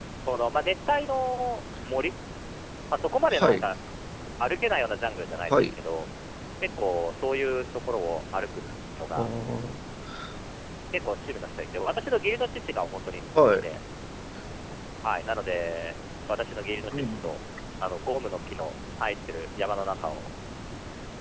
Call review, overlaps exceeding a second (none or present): none